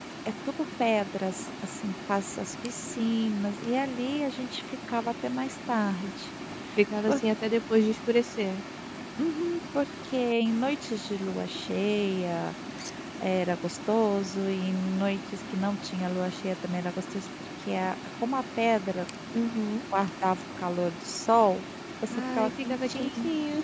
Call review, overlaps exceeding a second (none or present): present